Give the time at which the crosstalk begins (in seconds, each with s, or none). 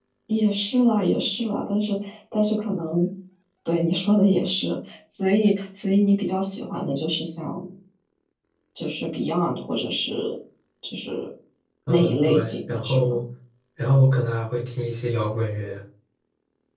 11.9 s